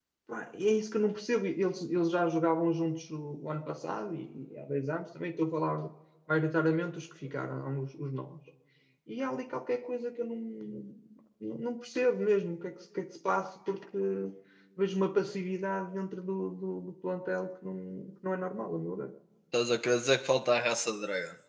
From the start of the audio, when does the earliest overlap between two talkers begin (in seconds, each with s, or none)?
none